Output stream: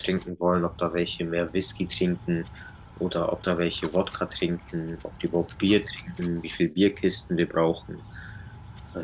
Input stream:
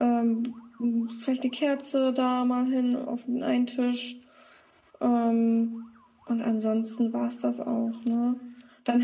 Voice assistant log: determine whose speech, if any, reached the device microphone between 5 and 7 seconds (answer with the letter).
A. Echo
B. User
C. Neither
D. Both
B